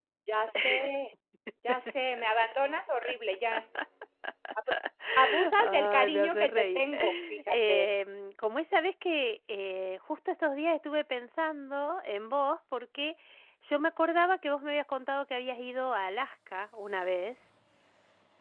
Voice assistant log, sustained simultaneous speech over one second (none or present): present